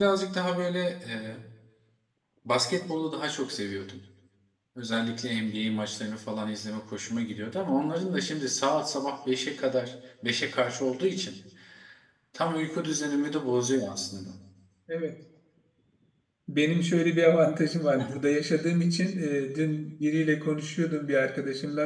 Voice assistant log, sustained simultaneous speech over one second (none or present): none